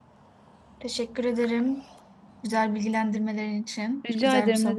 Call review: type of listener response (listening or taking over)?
taking over